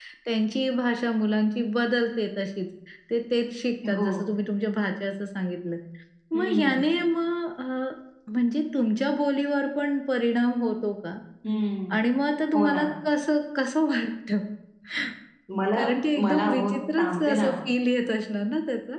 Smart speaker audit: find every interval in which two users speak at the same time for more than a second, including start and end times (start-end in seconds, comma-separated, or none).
16.2-17.5